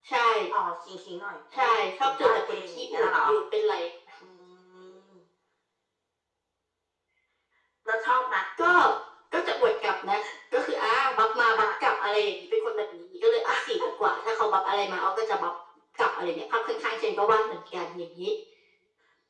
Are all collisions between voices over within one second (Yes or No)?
No